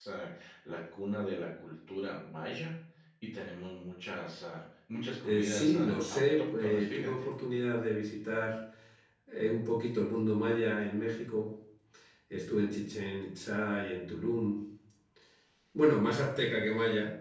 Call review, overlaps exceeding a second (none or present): present